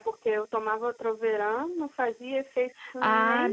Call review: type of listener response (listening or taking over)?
taking over